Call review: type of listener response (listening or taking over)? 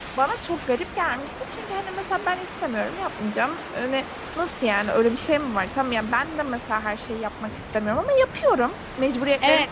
taking over